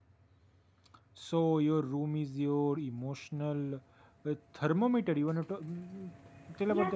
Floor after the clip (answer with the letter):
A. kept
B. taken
B